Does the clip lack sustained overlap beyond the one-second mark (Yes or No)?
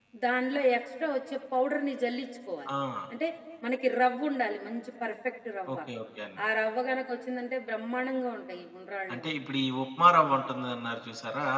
Yes